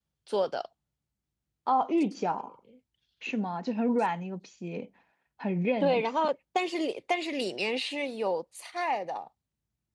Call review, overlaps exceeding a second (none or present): none